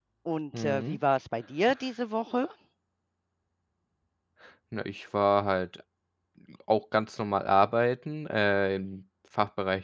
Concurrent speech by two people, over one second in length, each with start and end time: none

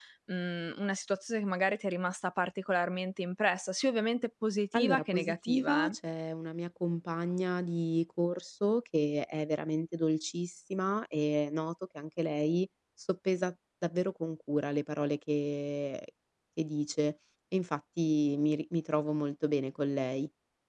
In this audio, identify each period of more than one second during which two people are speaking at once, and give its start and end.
4.8-6.0

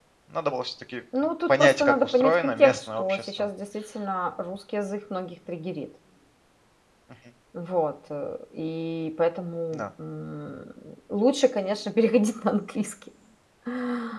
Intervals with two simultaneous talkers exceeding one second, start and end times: 1.5-3.5

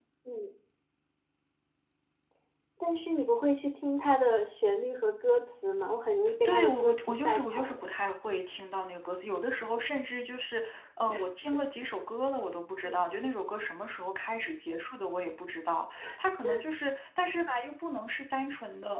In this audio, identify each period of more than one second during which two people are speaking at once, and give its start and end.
6.5-7.9

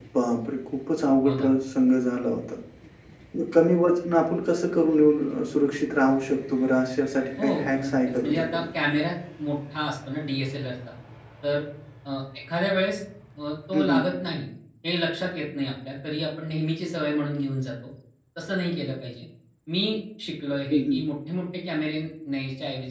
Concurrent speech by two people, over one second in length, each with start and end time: 7.4-8.7

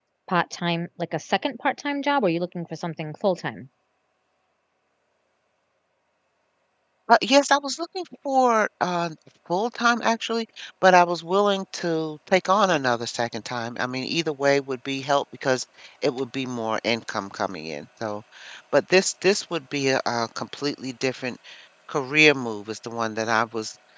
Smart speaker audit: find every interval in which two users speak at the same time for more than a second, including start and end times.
none

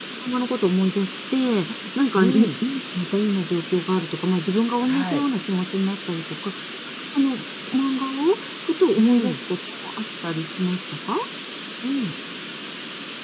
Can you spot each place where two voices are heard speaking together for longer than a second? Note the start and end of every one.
none

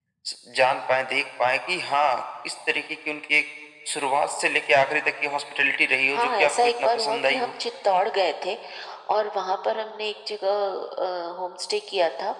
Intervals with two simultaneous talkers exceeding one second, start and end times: 6.1-7.5

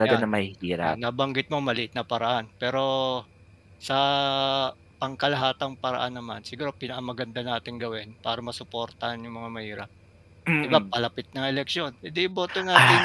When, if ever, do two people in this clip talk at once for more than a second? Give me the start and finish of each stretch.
none

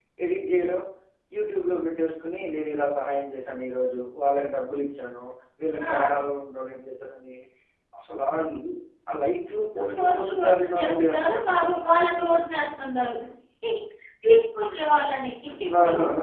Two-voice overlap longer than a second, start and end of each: 10.0-11.4

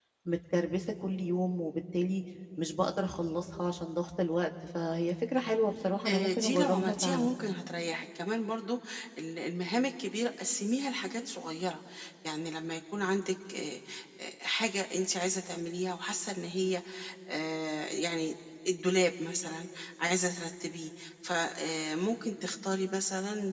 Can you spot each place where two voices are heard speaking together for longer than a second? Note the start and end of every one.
6.1-7.3

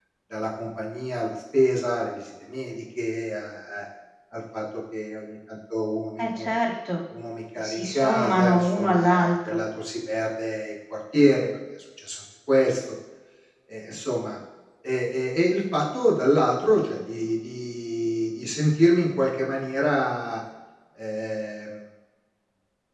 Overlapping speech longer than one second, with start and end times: 7.6-9.6

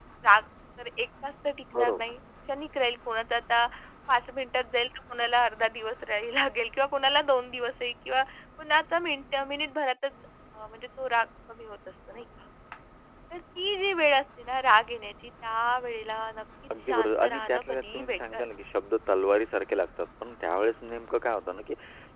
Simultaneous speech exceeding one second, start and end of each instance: 16.8-18.4

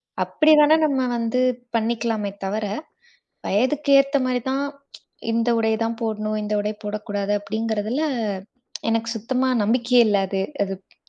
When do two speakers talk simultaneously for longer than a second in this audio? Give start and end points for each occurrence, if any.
none

